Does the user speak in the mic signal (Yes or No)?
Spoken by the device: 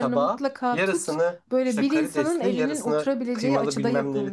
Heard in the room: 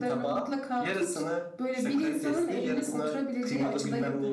No